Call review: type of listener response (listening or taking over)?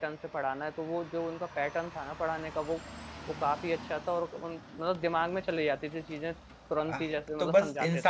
taking over